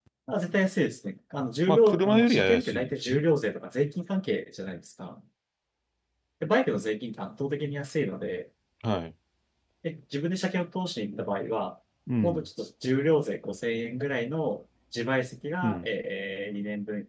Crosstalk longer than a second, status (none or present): present